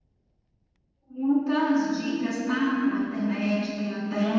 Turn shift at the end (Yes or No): Yes